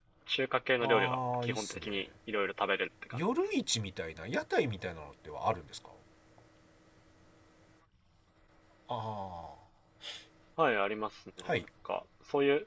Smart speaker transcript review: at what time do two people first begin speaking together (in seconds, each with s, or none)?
0.8 s